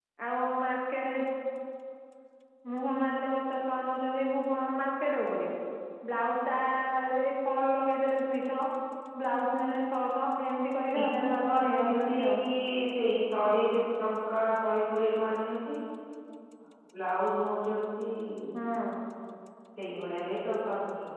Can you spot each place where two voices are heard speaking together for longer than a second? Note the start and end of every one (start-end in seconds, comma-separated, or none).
11.0-12.4